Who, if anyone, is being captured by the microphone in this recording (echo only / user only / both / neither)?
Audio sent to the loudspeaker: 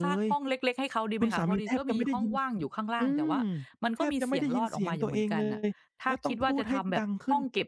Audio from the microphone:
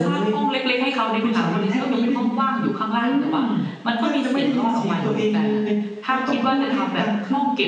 echo only